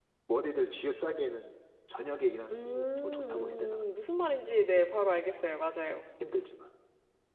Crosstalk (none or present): present